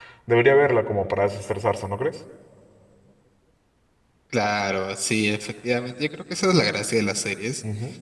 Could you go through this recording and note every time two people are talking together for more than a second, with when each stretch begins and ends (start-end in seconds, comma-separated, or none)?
none